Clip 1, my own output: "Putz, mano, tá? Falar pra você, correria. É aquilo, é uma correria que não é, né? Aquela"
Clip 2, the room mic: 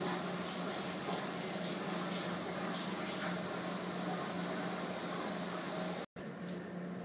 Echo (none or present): none